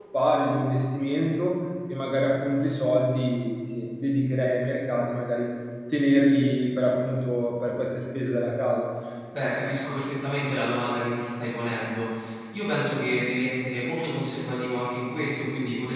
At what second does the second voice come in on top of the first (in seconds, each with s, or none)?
none